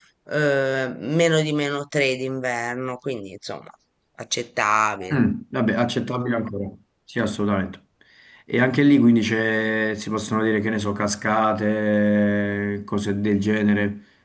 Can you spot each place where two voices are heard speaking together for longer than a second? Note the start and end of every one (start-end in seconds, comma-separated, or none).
none